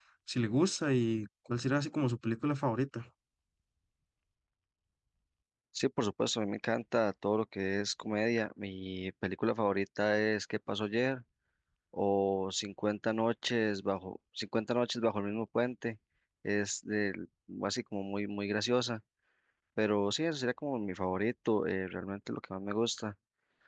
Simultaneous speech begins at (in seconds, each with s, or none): none